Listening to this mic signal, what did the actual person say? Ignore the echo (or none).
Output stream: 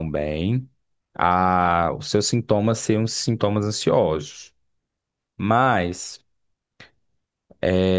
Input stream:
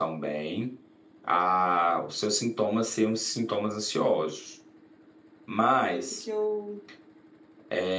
por isso que eu,